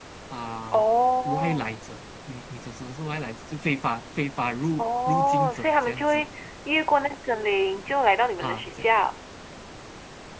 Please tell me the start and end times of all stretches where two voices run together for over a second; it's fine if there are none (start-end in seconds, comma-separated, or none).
4.8-6.2